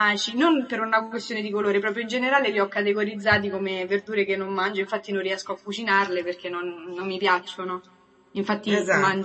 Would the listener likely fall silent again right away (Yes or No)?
Yes